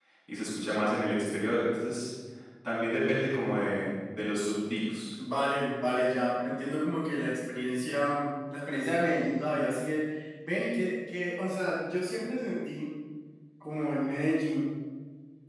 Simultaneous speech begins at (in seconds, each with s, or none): none